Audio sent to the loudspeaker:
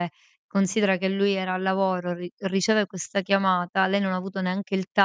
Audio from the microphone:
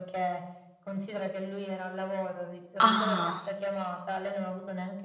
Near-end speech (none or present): present